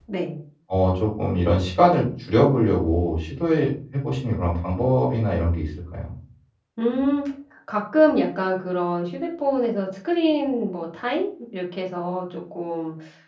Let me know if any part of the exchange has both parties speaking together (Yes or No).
No